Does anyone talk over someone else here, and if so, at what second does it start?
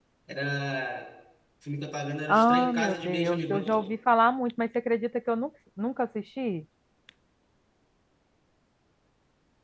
2.3 s

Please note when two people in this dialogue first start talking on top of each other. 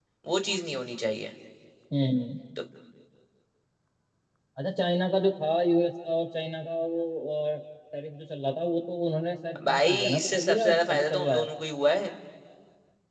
9.6 s

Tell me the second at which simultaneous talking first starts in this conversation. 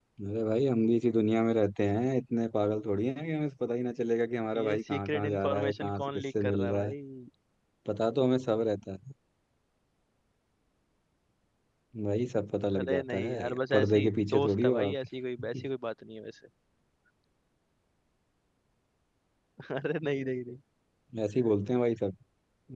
4.6 s

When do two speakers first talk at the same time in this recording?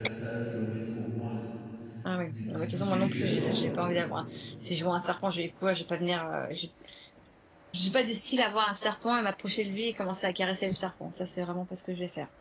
2.3 s

